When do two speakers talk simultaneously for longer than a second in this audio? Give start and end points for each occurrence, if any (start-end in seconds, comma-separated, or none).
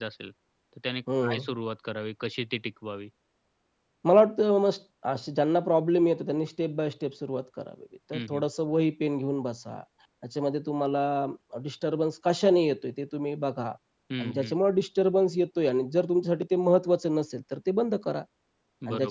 none